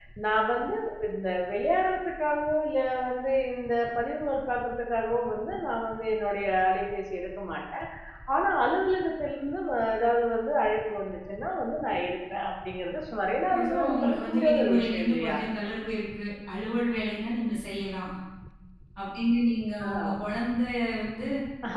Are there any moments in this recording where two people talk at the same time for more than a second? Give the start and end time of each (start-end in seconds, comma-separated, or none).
13.6-15.4